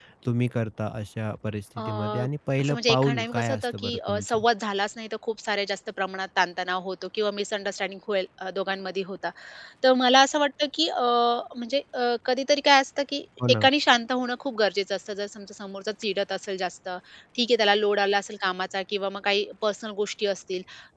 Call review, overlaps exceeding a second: present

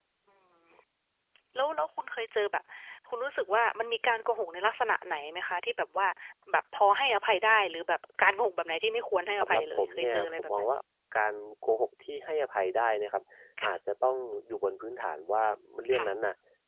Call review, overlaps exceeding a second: present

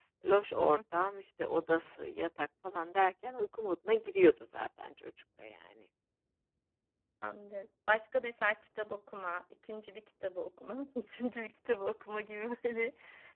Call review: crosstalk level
none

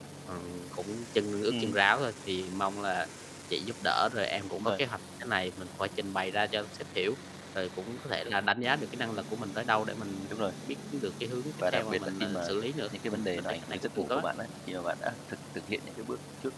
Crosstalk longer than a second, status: present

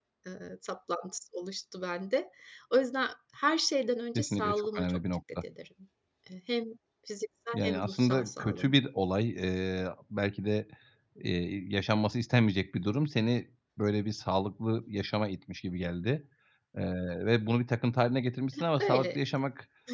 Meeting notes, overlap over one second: present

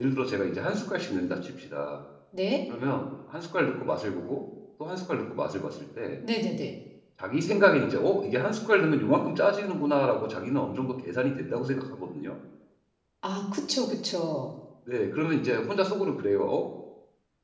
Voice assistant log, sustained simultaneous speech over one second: none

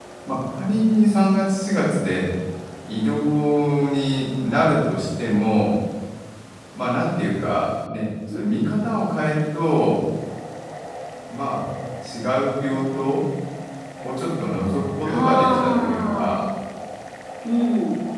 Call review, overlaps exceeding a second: present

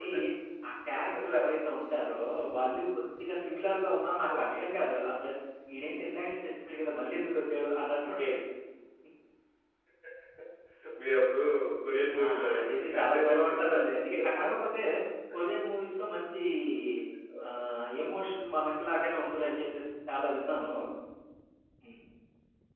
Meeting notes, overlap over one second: present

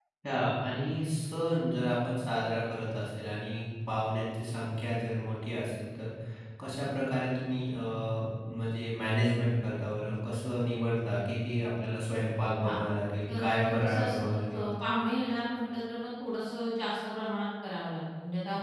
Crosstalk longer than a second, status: present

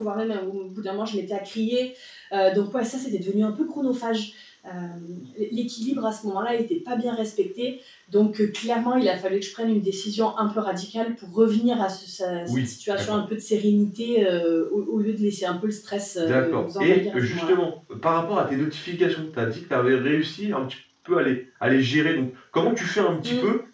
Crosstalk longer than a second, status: present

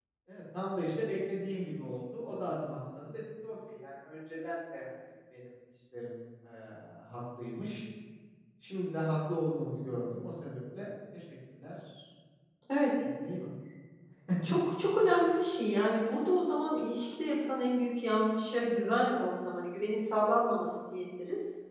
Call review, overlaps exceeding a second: none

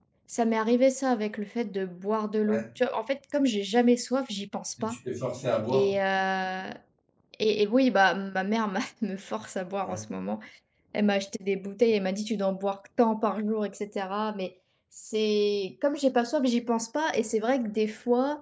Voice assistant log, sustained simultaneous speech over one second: none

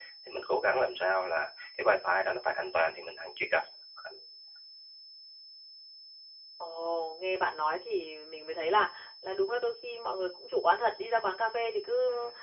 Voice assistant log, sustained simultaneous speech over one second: none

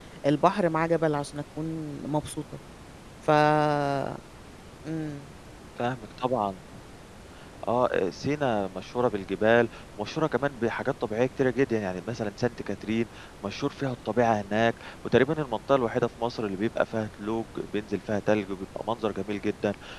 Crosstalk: none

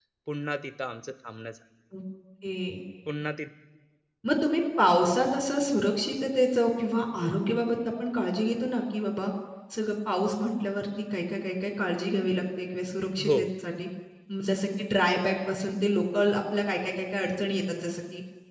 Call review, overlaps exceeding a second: none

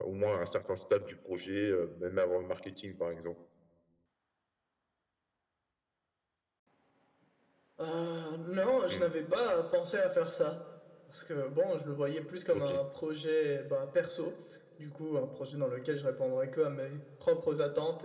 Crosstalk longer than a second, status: none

